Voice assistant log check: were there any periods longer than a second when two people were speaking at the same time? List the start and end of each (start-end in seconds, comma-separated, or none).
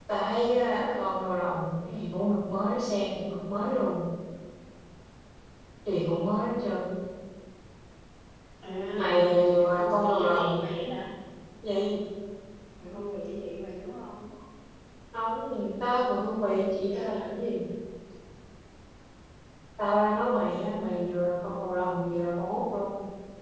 9.0-10.6